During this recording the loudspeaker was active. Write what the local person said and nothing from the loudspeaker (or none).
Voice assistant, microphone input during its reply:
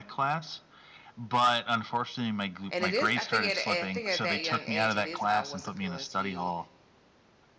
And it is I think at I think at that young age, it is about what's appealing to you